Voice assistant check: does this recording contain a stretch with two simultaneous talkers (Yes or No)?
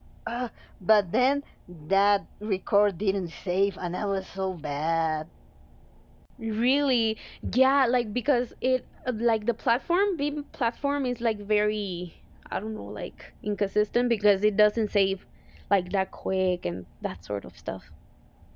No